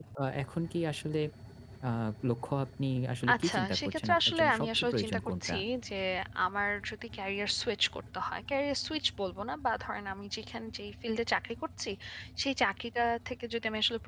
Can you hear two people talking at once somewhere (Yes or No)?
Yes